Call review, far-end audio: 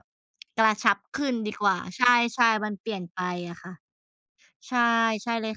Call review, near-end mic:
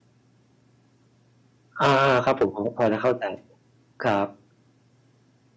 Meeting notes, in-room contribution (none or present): present